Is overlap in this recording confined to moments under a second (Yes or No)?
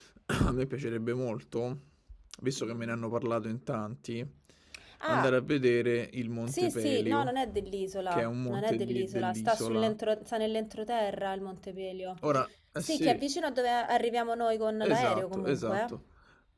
No